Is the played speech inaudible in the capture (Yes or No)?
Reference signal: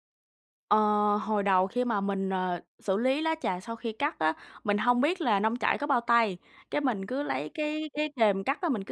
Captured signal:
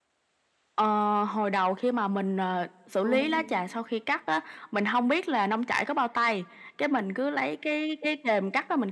No